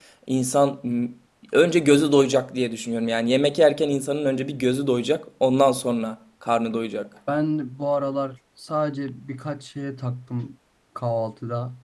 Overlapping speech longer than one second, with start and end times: none

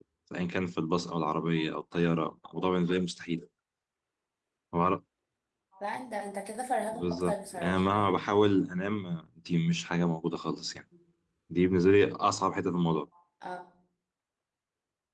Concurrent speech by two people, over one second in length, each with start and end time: 6.9-8.3

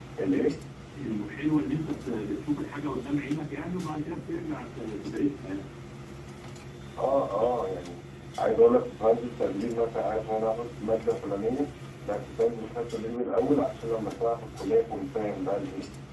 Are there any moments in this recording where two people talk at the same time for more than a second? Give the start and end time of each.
none

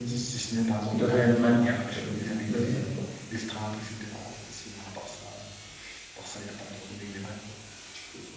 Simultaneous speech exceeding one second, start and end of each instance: 0.9-2.2

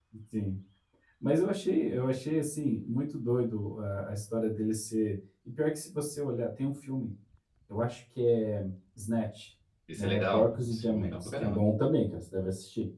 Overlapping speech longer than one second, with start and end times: 10.0-11.6

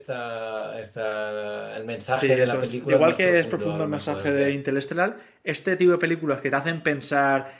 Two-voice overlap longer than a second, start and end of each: 2.2-4.5

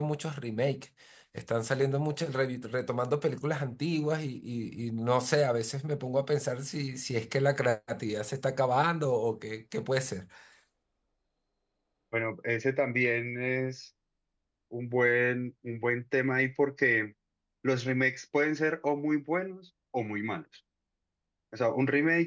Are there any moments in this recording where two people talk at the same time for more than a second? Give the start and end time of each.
none

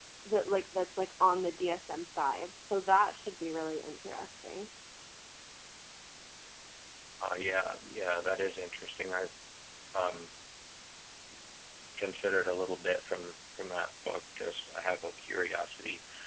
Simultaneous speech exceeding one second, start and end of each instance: none

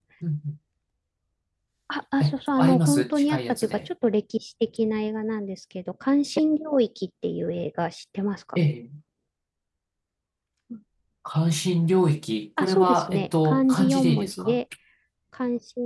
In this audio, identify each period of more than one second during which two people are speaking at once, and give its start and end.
2.2-3.9, 12.6-14.6

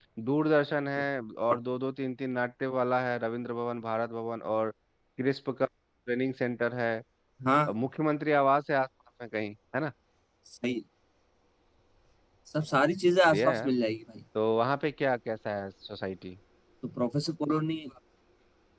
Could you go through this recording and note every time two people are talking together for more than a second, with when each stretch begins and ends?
none

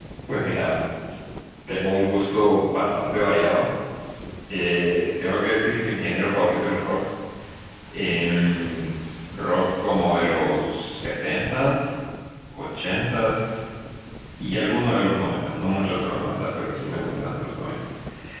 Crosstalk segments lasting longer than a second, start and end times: none

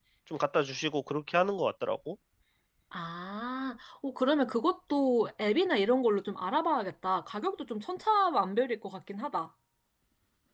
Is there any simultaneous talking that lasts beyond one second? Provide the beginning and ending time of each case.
none

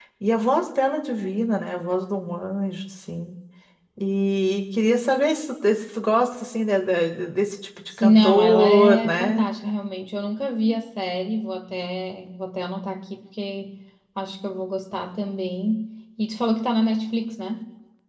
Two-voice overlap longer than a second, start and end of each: 8.0-9.4

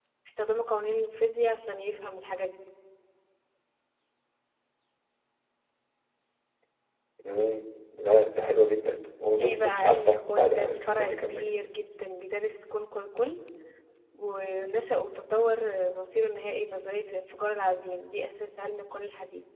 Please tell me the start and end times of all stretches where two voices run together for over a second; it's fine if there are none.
9.4-11.5

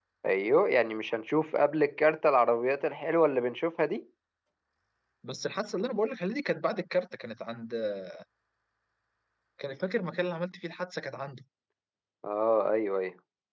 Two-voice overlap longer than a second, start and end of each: none

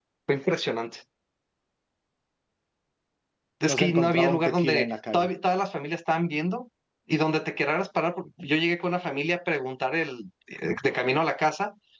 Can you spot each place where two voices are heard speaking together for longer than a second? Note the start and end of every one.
3.6-5.3

